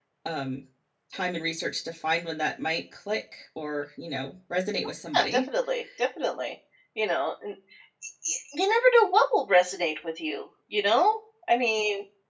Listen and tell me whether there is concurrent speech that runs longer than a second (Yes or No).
No